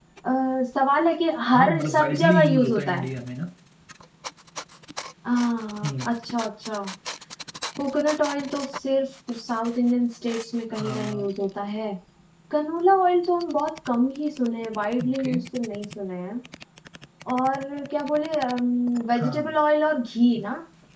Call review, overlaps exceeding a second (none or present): present